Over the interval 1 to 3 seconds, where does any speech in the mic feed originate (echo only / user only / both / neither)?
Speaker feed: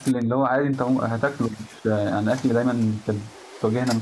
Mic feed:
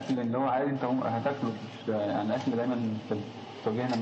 echo only